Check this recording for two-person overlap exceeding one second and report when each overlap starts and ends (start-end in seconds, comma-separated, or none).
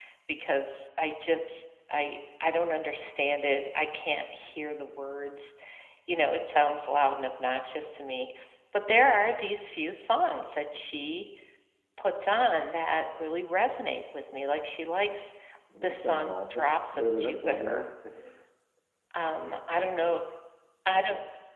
15.8-17.8